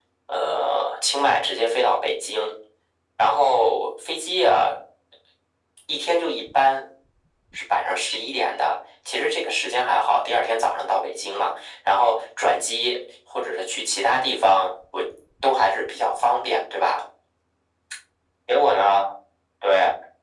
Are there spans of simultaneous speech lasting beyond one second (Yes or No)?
No